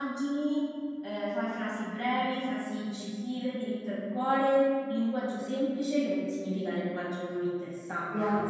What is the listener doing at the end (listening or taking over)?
taking over